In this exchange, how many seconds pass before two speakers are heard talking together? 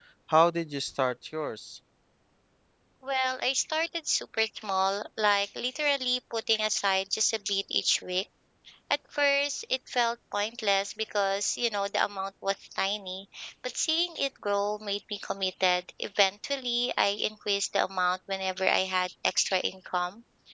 none

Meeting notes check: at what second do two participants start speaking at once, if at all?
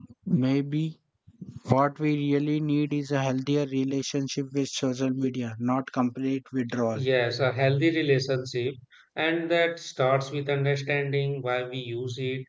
none

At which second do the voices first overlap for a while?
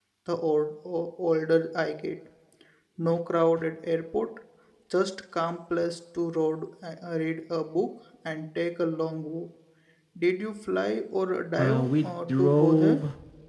11.6 s

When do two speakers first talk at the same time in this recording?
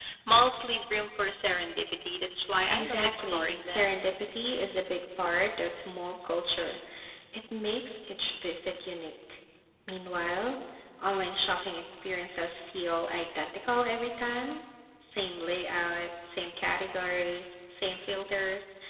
2.7 s

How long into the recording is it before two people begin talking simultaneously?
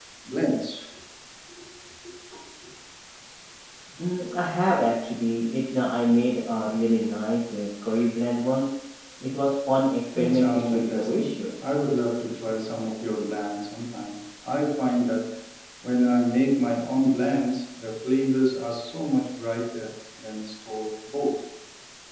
10.2 s

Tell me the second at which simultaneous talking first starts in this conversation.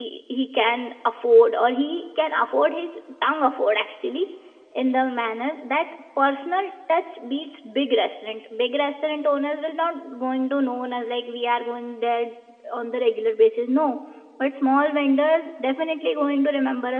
none

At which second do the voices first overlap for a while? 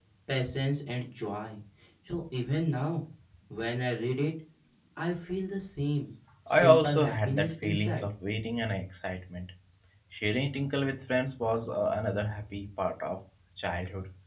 6.5 s

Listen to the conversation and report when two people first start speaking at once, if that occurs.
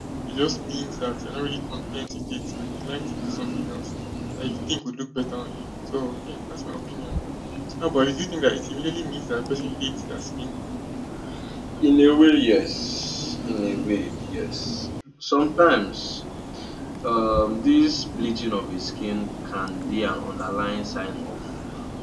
none

